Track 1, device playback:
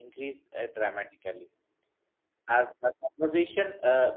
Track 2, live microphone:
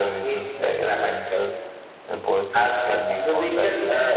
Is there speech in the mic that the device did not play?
Yes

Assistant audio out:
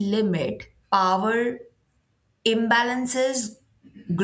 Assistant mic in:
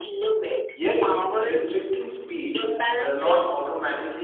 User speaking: Yes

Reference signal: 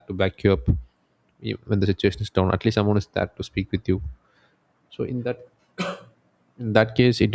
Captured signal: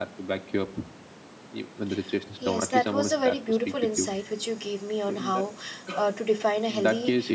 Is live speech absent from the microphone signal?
No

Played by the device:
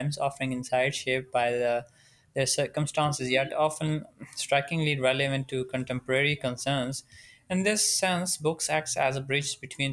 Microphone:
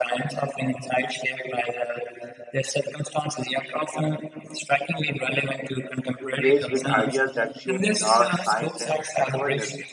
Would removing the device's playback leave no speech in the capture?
No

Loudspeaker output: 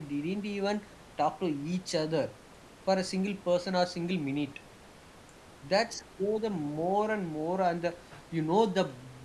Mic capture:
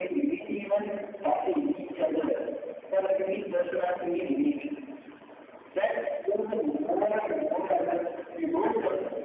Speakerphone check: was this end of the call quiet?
Yes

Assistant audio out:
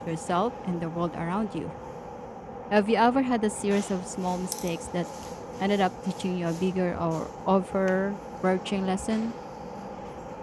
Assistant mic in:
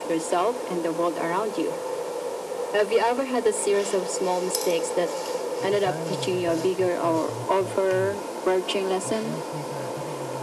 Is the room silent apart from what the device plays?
No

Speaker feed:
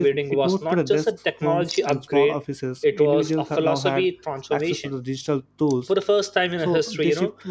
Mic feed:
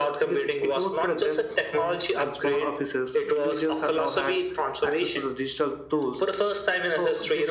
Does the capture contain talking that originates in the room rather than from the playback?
No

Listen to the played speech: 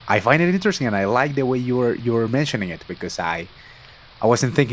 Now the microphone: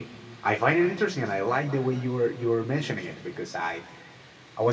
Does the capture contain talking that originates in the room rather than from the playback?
No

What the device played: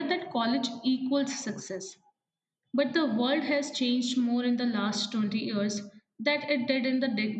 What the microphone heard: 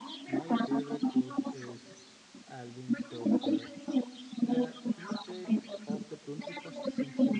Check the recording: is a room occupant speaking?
Yes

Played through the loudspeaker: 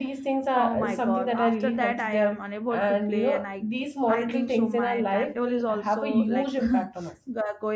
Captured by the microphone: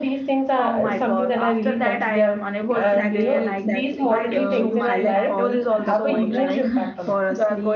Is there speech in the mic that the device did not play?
Yes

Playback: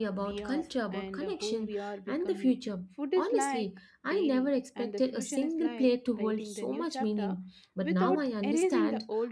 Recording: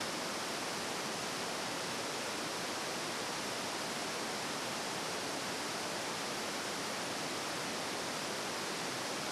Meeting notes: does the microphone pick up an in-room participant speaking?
No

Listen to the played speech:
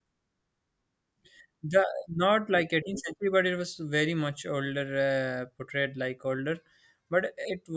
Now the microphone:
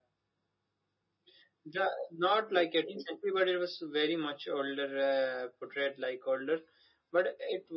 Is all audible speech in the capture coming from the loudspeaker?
Yes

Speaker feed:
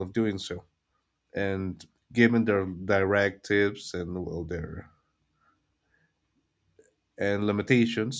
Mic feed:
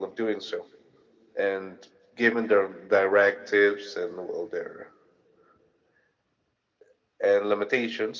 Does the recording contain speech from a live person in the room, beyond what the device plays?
No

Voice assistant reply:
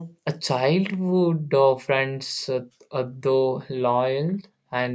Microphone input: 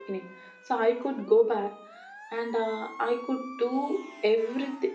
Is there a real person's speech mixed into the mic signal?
Yes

